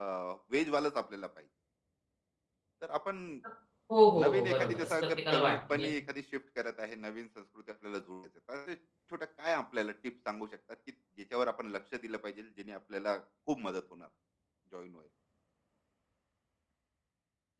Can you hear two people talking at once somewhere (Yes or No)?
Yes